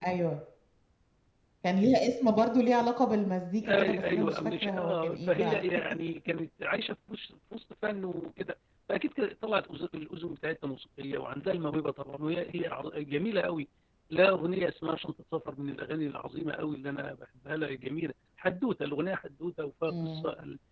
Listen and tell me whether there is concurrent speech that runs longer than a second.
Yes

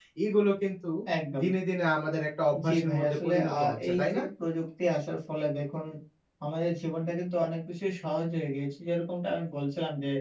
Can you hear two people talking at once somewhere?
Yes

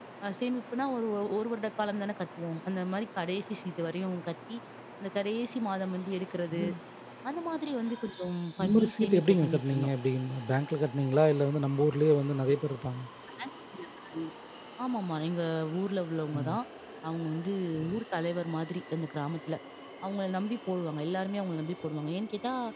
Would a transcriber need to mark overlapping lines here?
Yes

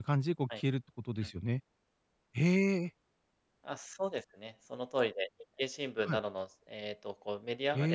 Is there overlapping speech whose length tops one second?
No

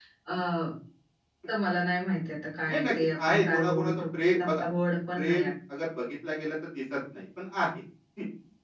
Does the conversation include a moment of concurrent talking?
Yes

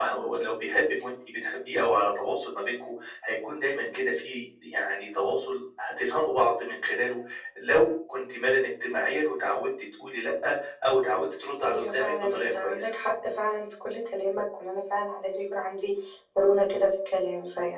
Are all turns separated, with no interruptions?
No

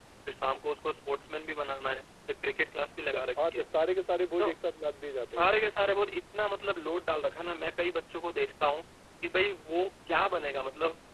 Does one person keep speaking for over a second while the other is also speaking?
No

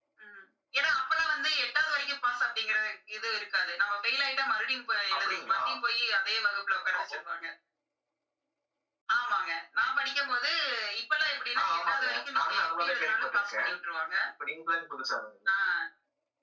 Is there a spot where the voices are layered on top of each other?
Yes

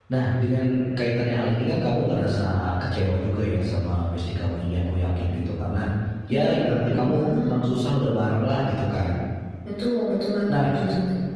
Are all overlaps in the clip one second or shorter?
No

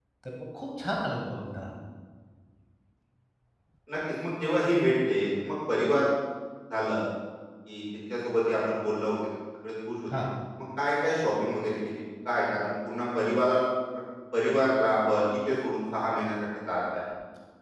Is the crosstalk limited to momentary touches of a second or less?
Yes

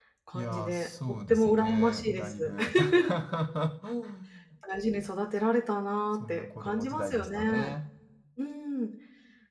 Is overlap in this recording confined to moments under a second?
No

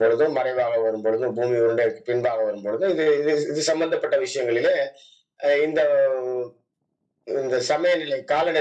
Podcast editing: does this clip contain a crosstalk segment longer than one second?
No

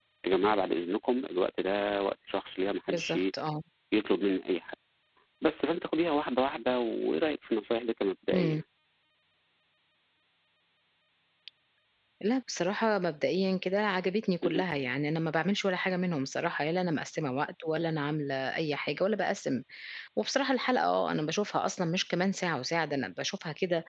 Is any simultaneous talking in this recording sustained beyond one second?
No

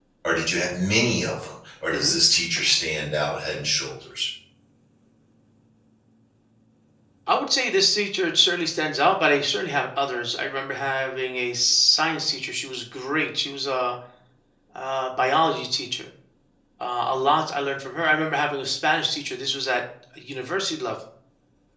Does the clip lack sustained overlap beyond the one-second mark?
Yes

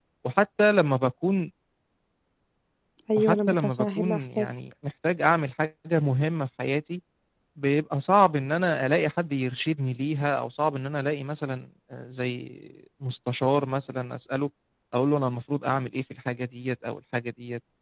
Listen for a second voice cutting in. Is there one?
Yes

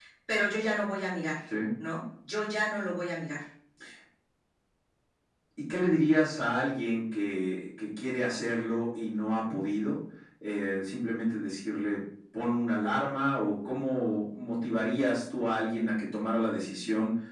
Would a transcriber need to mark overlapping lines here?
No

